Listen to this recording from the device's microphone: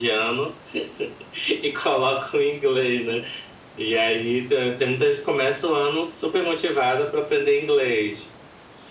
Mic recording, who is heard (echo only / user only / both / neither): echo only